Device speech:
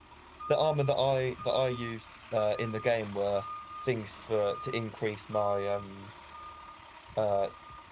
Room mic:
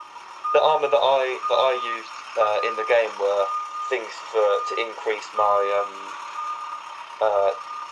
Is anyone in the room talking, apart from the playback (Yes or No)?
No